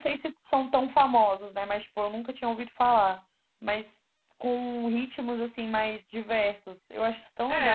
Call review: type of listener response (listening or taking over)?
taking over